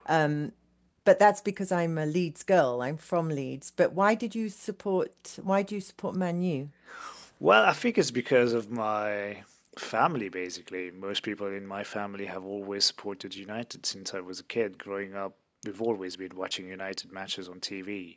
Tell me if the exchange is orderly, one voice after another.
Yes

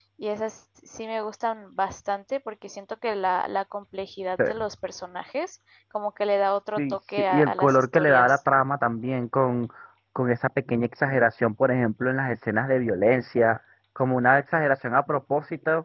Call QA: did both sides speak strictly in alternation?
No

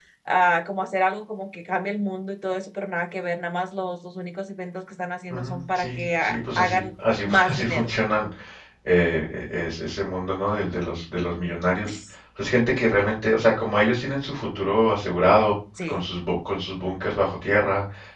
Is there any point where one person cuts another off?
Yes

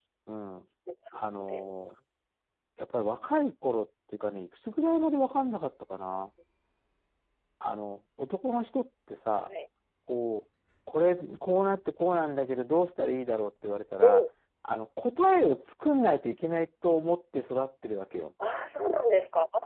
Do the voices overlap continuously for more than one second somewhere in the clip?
No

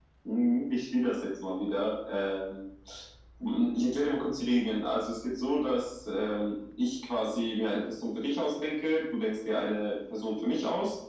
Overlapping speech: No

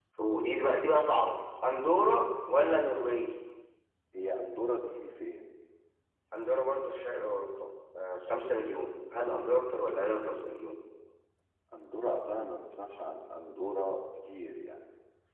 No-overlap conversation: Yes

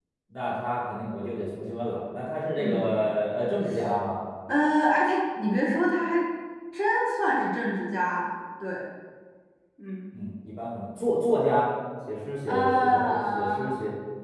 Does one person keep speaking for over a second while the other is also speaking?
Yes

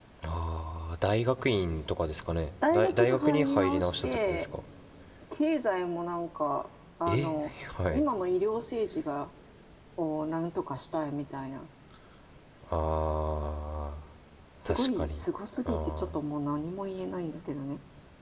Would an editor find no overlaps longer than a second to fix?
No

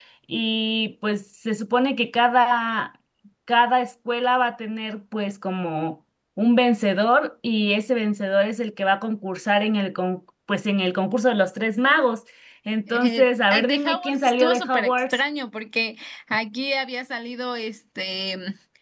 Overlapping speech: Yes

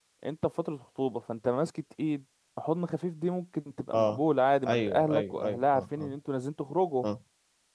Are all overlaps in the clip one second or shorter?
No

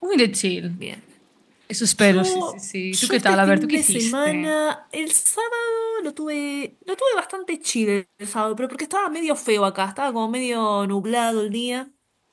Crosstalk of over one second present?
Yes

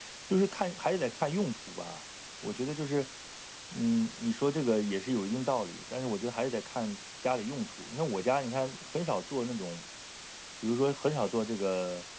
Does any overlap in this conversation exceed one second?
No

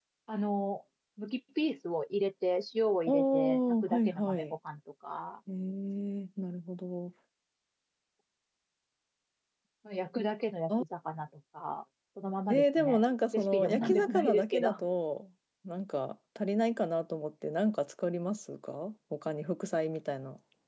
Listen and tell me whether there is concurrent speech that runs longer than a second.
Yes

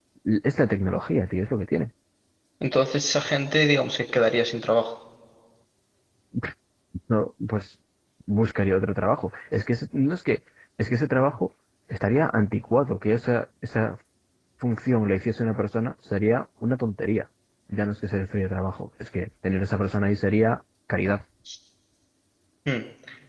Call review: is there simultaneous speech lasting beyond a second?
No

